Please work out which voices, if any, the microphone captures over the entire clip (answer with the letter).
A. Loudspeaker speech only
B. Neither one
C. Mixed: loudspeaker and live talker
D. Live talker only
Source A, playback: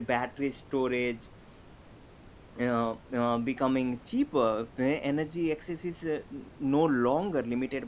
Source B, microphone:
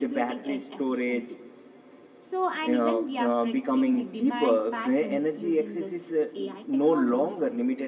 C